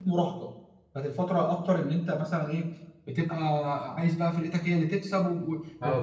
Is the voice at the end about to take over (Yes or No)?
Yes